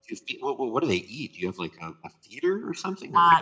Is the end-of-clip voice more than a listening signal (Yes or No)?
Yes